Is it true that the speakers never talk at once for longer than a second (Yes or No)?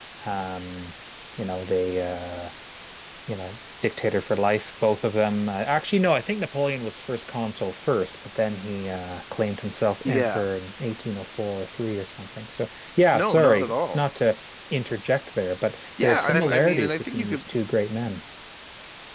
No